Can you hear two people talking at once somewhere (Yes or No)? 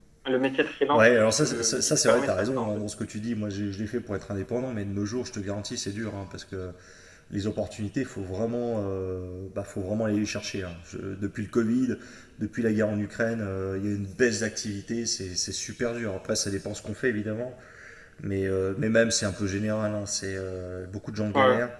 Yes